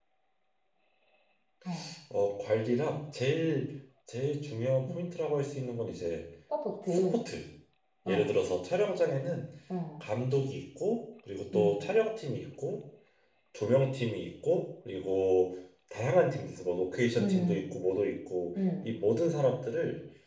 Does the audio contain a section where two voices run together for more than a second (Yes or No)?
No